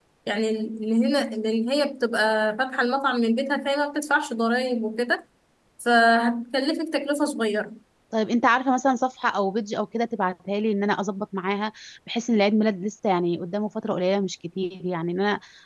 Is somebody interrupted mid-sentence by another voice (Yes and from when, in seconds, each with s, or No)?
No